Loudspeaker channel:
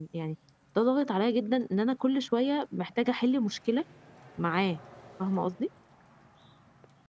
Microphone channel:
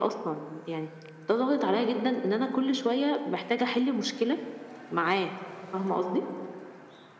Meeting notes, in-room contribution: none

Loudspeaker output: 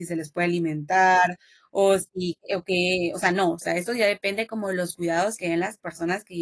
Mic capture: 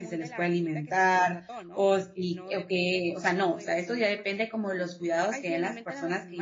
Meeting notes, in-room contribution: present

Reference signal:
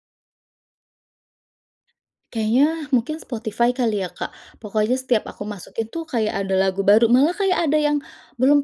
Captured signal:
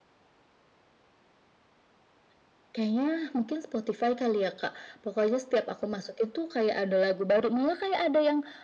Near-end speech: none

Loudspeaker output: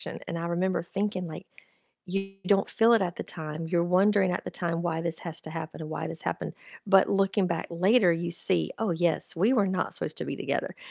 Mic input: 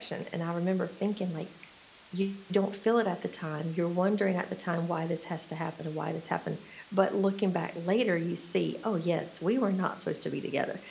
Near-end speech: none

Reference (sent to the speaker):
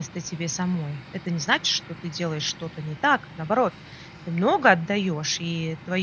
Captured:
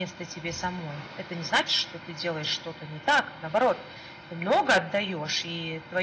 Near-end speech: none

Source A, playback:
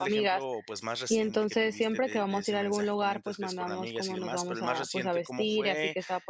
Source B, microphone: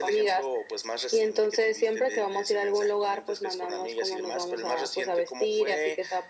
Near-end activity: none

